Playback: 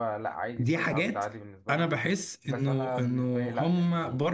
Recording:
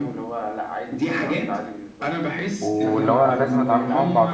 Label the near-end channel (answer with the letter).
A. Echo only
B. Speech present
B